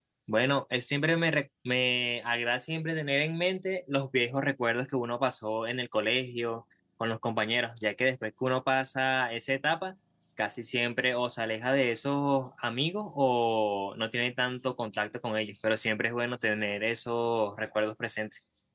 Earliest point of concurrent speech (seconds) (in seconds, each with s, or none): none